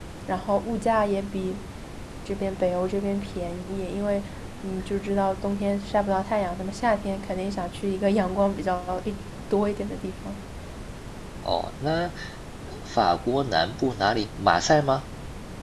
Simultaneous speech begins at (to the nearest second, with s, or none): none